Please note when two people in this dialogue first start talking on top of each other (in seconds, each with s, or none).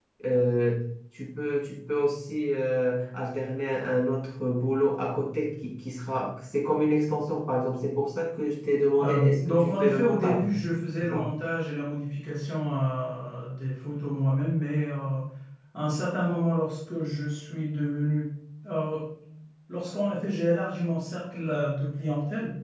9.0 s